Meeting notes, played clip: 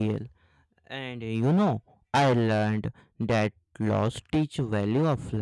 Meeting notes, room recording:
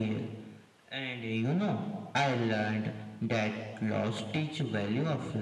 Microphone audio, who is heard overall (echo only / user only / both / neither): echo only